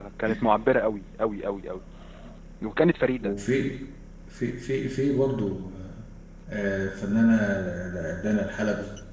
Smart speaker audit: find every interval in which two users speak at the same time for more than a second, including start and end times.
none

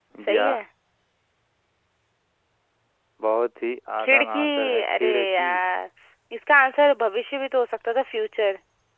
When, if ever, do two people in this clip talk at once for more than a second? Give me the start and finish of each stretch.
4.0-5.5

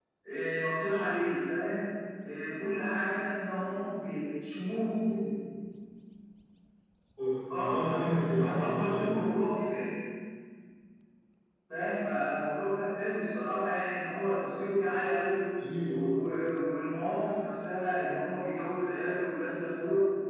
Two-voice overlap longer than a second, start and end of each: 7.5-9.2

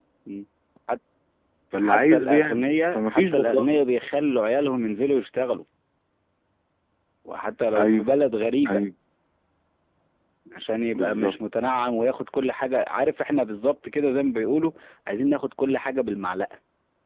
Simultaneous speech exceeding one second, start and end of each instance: 1.8-3.9

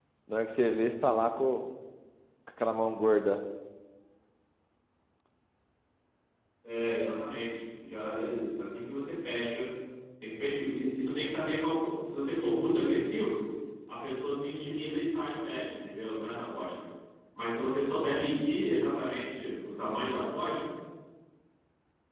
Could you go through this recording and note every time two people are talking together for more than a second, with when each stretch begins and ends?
none

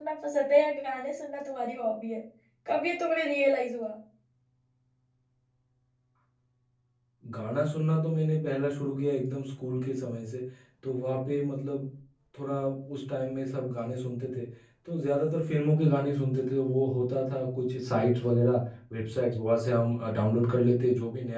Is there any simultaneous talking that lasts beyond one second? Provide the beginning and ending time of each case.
none

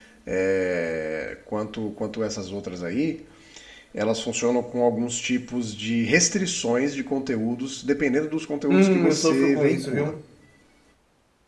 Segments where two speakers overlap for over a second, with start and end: 8.7-10.1

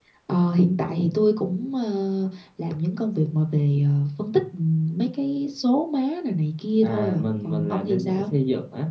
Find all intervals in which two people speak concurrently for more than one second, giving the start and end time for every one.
6.8-8.2

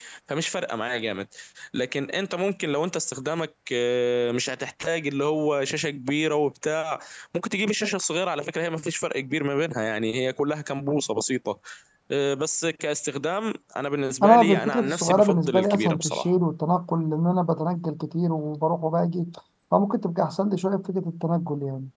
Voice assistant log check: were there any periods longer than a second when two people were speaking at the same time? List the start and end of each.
14.2-16.3

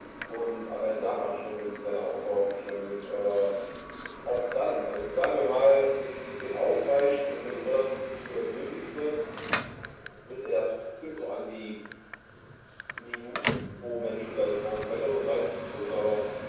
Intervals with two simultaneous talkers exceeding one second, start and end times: none

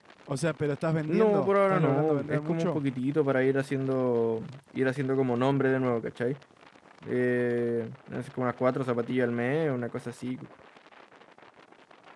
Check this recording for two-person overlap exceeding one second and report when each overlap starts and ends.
1.1-2.8

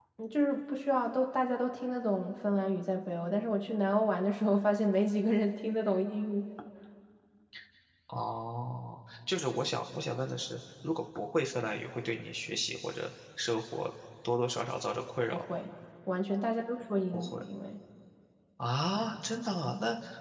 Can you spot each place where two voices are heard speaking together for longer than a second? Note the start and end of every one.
none

